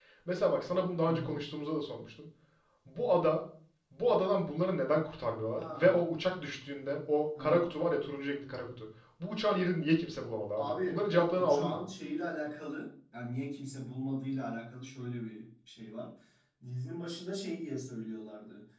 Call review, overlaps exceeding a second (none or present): present